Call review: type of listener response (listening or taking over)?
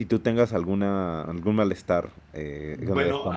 taking over